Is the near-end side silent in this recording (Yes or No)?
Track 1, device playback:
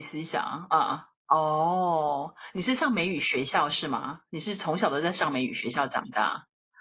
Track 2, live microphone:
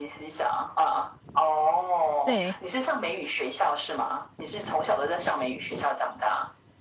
No